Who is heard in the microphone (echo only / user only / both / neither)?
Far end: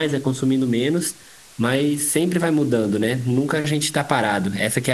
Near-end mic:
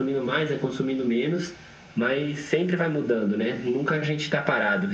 echo only